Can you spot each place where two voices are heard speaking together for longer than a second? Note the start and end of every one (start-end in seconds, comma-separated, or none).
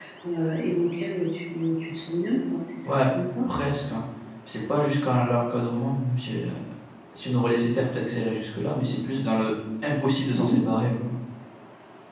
none